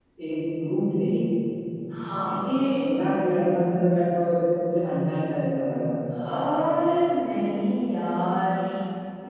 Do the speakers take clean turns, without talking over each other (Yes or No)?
Yes